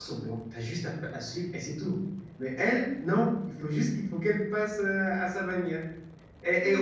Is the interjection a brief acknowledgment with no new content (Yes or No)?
Yes